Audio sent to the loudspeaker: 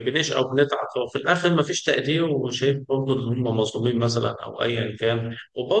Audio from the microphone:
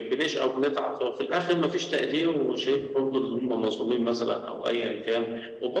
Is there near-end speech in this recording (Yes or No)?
No